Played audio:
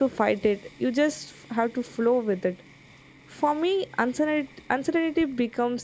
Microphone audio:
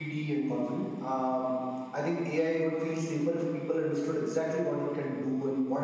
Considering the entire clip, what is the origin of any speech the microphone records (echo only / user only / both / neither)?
user only